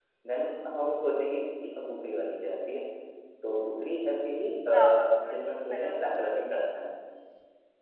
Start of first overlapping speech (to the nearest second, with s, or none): 5 s